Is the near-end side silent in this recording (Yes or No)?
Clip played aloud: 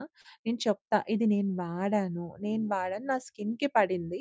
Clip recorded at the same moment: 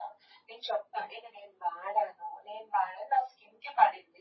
Yes